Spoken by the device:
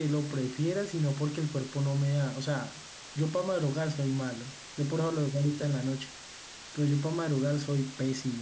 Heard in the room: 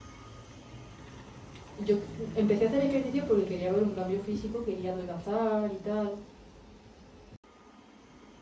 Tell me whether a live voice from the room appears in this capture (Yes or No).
Yes